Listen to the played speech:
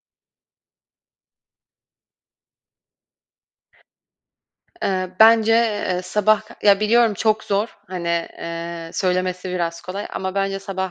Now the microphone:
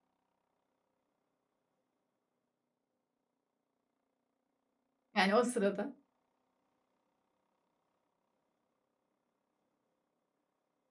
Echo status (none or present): none